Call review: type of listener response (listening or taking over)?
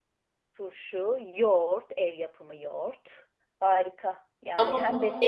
taking over